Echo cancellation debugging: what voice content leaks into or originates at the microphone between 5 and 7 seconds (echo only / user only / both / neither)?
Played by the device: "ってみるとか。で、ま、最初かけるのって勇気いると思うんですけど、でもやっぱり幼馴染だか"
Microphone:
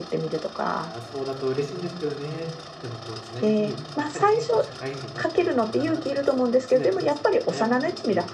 both